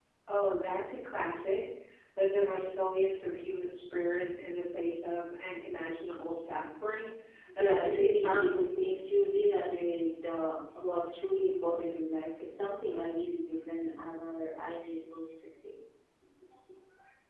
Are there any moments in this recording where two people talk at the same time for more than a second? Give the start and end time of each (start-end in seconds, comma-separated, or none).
7.6-9.0